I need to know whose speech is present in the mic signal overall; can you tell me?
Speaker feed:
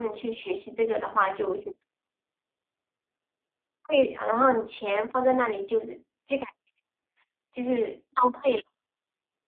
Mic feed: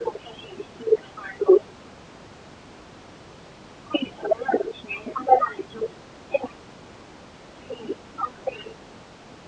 echo only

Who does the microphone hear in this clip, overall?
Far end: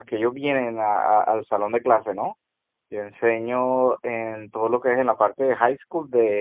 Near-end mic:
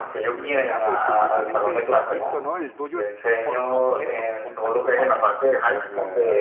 both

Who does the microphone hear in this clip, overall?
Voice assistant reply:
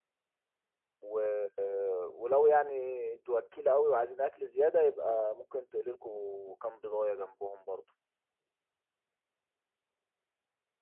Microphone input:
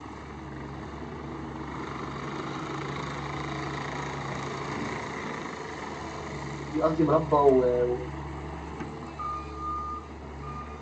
user only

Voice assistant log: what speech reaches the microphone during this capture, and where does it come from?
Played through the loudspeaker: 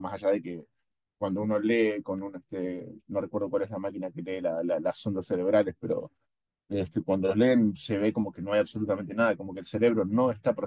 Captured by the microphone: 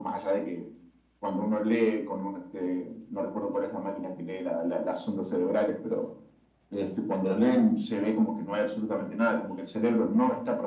echo only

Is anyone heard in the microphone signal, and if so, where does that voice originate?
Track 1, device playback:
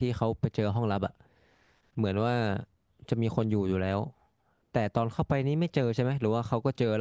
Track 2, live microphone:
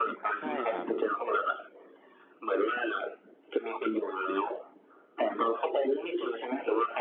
both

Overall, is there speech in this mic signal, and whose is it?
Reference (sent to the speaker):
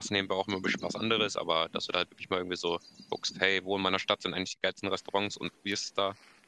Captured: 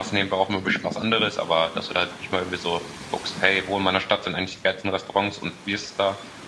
echo only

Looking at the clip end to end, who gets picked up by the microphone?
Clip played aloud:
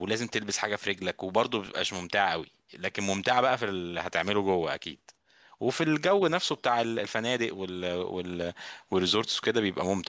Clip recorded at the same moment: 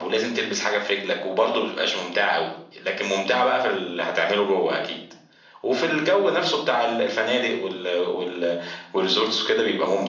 echo only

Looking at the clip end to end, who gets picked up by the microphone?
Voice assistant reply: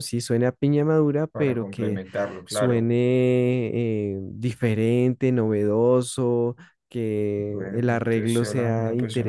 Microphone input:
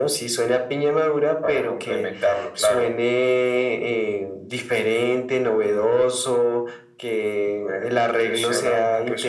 echo only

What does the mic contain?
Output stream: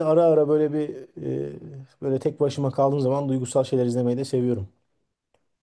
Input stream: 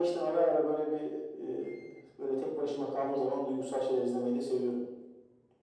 echo only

